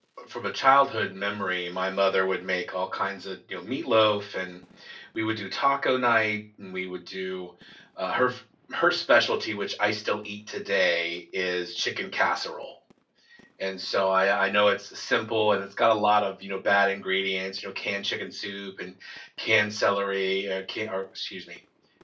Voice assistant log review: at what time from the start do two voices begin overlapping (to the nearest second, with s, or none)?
none